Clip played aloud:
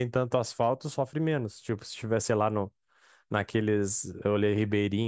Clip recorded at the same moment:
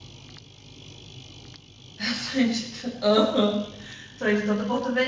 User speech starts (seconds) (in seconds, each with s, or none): 2.0 s